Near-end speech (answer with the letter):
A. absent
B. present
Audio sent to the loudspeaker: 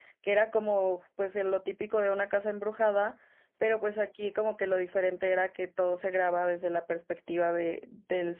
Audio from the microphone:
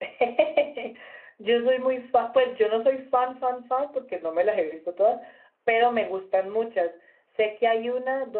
B